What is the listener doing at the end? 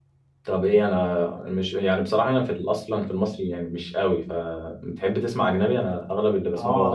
taking over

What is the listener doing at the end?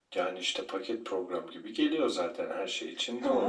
taking over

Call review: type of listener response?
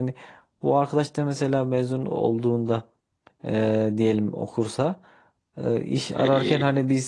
listening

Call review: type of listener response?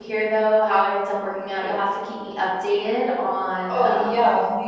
taking over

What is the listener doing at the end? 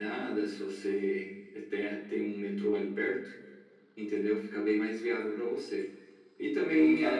taking over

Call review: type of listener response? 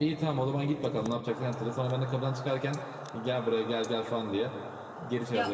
taking over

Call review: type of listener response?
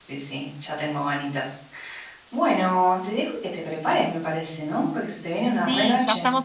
taking over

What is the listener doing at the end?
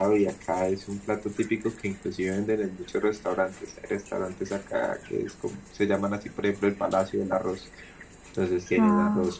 listening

